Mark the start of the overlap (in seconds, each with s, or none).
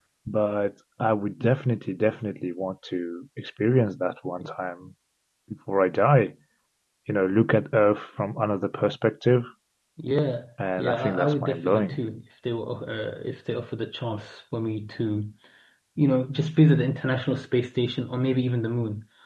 10.8 s